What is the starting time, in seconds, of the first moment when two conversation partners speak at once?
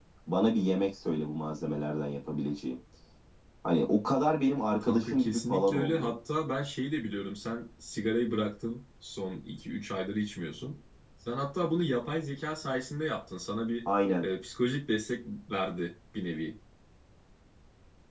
4.8 s

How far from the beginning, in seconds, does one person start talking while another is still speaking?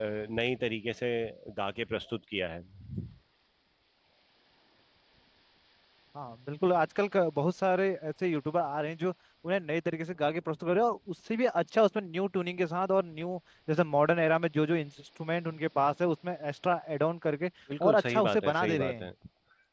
17.7 s

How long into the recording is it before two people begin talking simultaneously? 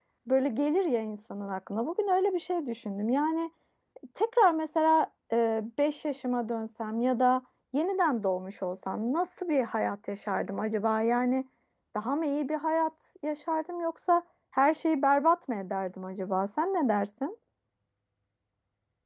none

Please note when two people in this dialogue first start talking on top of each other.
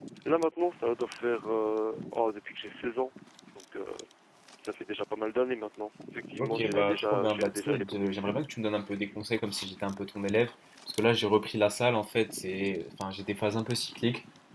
6.4 s

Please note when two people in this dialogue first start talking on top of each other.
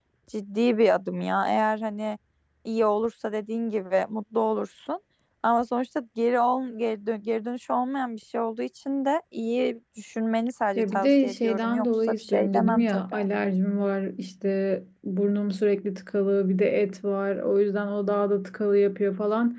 10.8 s

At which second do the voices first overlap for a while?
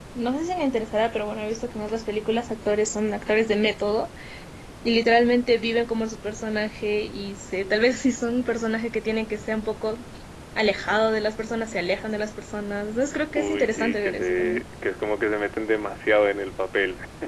13.4 s

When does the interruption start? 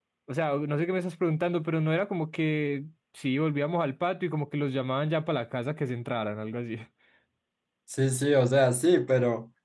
none

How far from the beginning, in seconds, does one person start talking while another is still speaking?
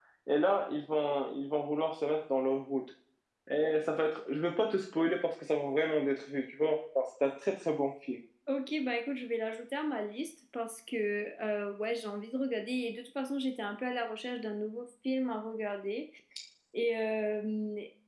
none

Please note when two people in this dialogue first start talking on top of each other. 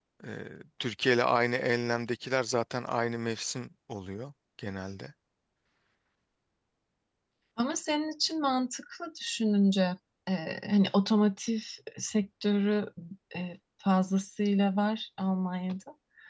none

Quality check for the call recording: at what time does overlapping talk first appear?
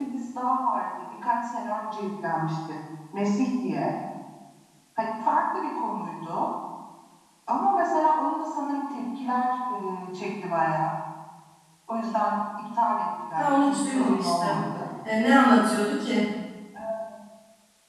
13.4 s

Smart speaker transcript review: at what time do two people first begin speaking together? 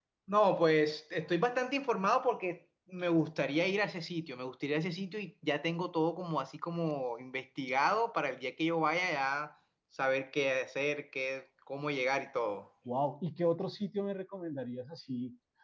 none

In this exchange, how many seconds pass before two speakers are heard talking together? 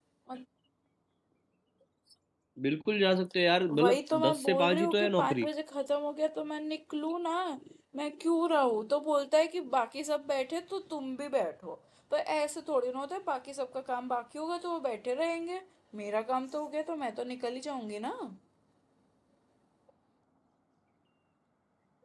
3.7 s

